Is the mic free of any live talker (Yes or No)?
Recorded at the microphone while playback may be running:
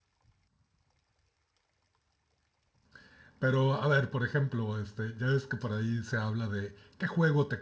No